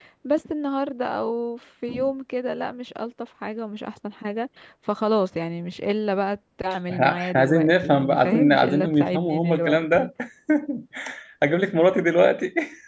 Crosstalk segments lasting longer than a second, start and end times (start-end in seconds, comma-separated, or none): 6.9-10.1